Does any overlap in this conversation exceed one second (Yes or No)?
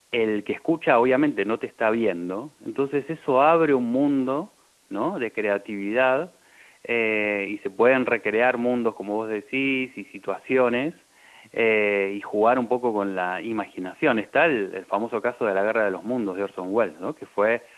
No